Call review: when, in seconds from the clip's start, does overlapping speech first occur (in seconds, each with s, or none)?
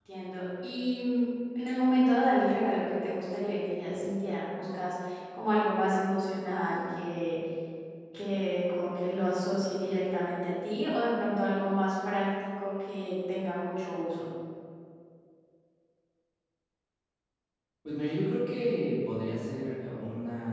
none